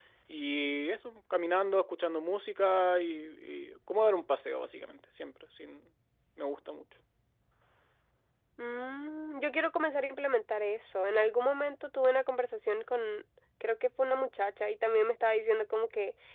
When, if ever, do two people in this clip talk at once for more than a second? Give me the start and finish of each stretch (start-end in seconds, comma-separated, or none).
none